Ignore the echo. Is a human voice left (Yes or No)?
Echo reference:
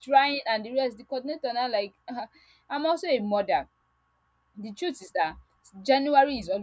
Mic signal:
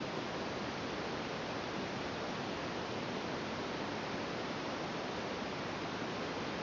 No